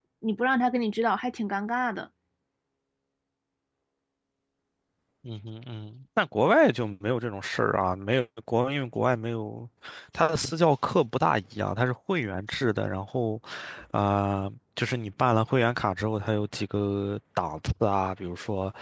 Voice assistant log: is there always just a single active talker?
Yes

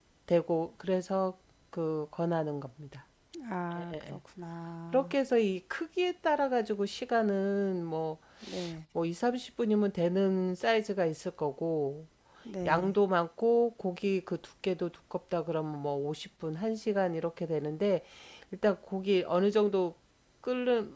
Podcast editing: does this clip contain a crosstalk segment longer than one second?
No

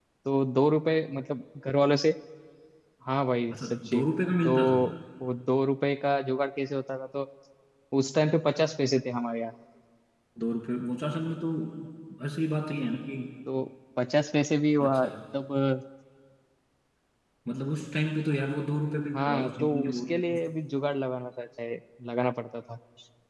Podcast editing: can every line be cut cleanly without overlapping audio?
No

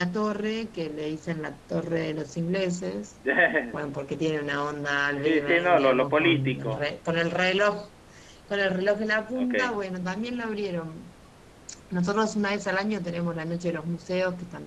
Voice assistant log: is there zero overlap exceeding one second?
No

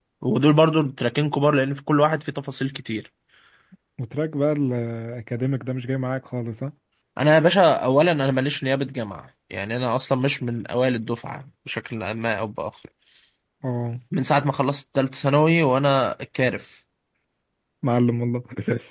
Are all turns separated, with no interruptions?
Yes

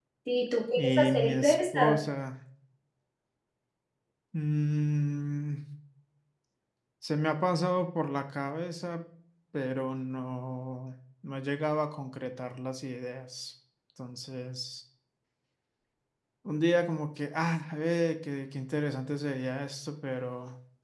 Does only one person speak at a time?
No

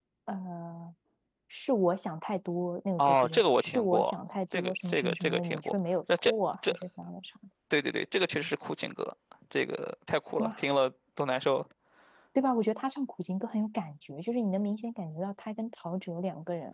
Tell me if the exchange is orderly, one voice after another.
No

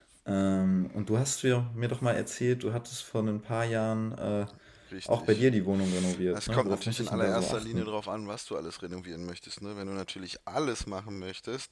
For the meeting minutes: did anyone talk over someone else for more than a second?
Yes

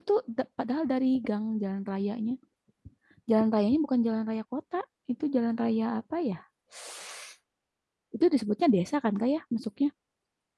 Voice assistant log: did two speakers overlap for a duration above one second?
No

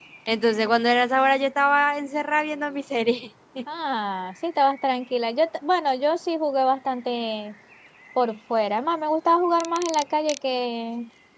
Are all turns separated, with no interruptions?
Yes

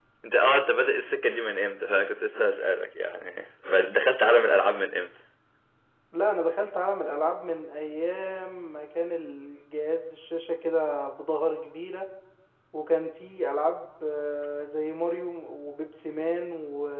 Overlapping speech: No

